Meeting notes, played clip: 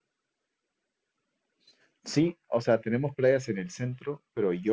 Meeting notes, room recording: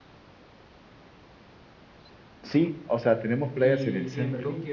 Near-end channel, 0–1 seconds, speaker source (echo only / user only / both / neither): neither